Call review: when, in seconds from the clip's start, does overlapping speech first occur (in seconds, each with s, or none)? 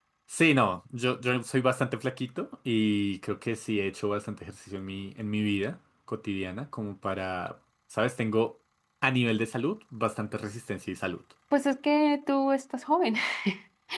none